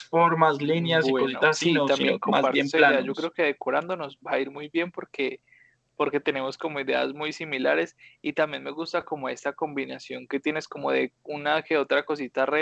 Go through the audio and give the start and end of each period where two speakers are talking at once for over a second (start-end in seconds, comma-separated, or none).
0.8-3.1